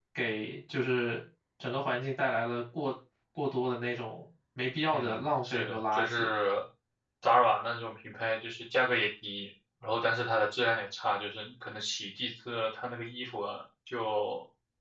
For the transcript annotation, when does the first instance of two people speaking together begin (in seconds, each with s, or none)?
4.9 s